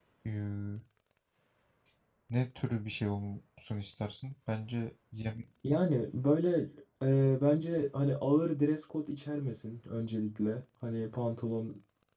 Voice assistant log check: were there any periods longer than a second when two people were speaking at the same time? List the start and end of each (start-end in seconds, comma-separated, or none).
none